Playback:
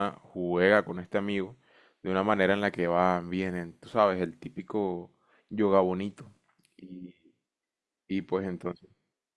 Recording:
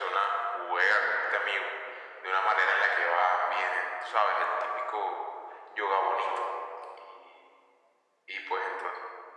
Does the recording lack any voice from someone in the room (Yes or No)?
Yes